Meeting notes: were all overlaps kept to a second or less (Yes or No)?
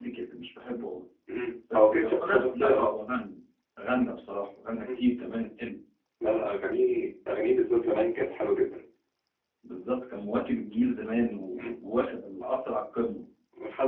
No